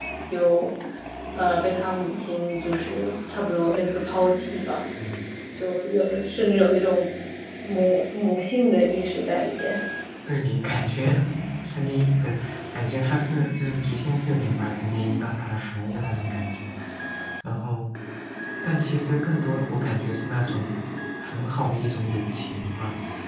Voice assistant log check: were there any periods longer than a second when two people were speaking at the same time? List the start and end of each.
none

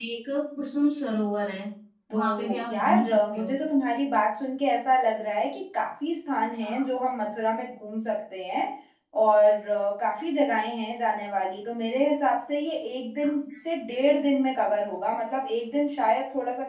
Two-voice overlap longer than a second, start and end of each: 2.1-3.5

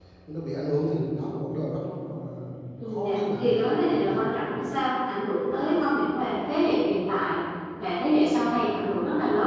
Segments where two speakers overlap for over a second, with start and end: 2.9-4.2

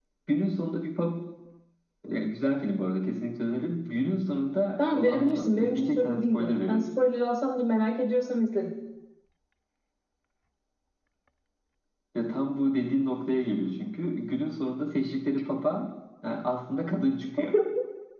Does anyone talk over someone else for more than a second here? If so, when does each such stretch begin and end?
4.8-6.9

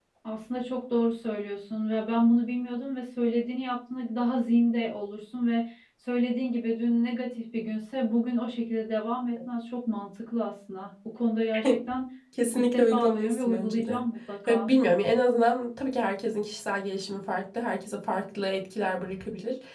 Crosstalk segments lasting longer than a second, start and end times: 12.6-14.0

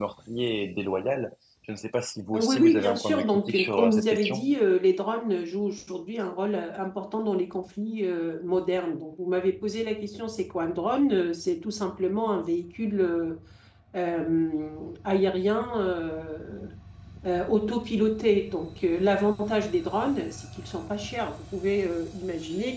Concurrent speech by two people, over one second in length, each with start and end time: 2.3-4.5

